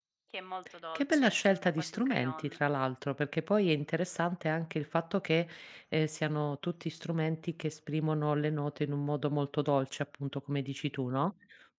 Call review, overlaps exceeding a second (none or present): present